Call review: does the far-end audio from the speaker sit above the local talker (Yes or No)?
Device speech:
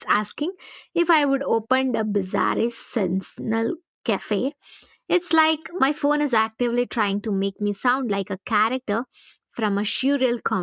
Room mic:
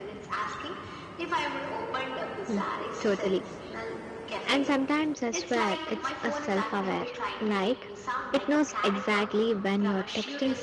No